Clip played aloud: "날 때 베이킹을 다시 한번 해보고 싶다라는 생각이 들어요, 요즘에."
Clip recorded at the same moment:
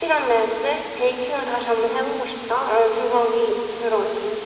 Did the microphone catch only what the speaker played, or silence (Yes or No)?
Yes